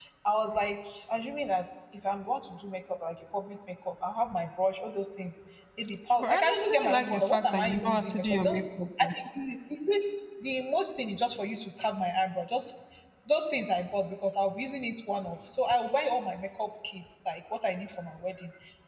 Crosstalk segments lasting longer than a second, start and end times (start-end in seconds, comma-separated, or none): 6.2-8.6